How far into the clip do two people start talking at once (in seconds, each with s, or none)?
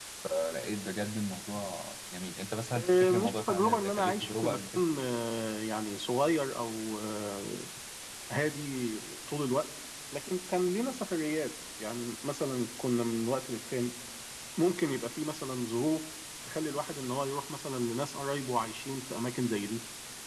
2.7 s